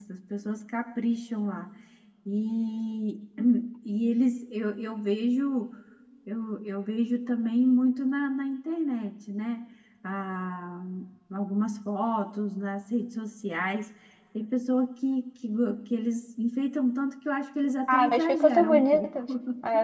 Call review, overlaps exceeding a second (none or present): present